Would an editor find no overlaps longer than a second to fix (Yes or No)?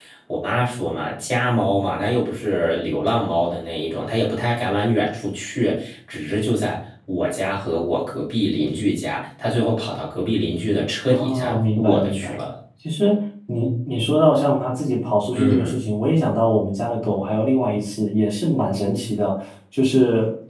No